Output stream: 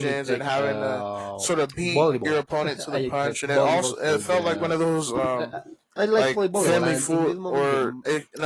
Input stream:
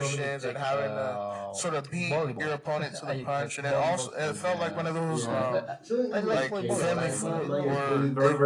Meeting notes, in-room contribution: present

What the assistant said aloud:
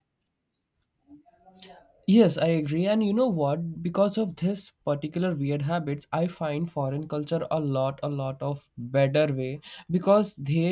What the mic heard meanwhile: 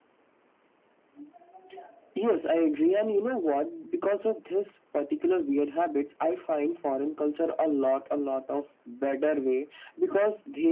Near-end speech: none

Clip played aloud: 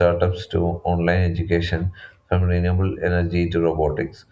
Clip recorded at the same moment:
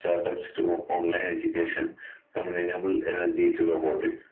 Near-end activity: none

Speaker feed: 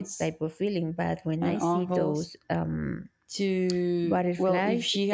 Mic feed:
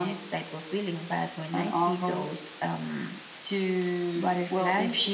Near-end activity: none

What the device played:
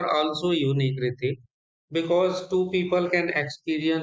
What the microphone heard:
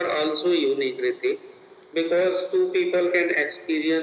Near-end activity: none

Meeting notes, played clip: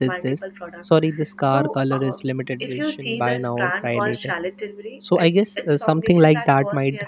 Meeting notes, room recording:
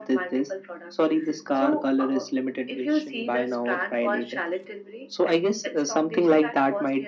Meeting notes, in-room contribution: none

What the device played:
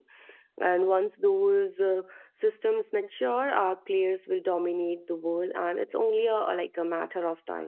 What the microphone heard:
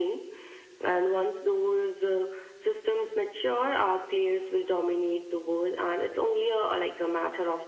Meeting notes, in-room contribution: none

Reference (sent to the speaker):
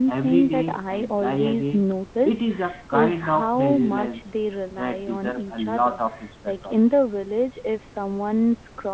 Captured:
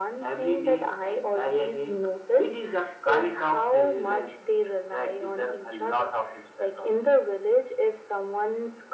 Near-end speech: none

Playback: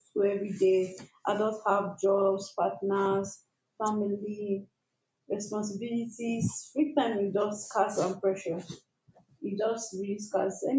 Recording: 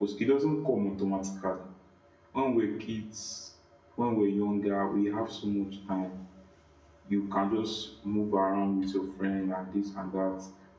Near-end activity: present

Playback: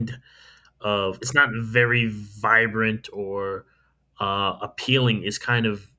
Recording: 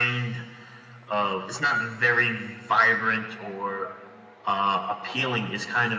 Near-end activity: none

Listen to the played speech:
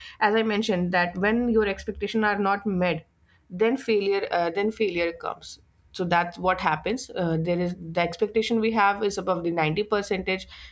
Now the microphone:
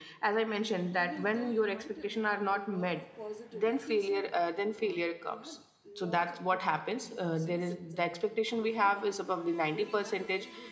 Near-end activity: present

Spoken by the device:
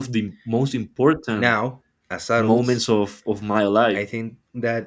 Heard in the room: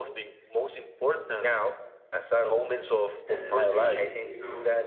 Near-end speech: present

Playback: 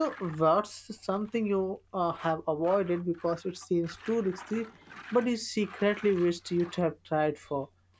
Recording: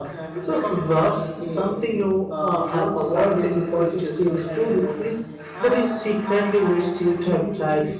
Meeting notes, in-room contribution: present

